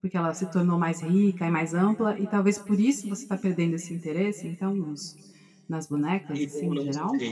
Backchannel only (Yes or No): No